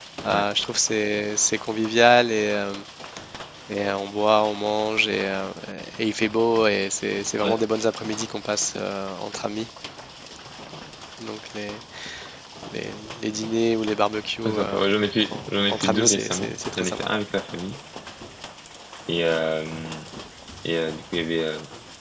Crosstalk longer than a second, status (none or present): present